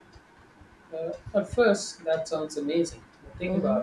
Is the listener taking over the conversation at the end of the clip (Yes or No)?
No